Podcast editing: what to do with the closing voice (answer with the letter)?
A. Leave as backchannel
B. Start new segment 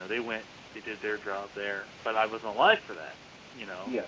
A